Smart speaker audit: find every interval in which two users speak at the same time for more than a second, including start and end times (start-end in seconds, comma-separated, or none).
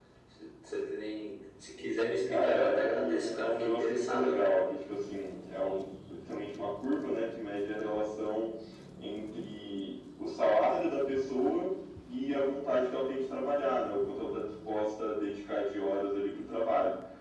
2.3-4.6